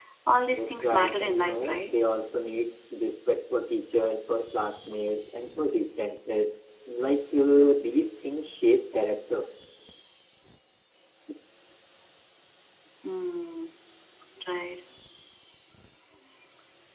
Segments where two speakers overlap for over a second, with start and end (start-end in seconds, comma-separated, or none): 0.5-1.9